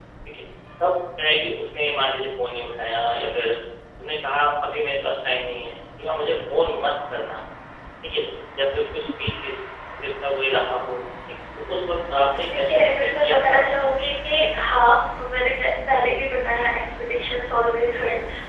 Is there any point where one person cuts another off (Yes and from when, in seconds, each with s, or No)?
Yes, from 12.3 s